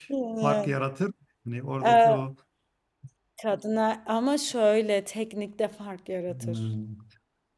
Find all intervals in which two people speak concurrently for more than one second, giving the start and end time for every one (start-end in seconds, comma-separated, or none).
none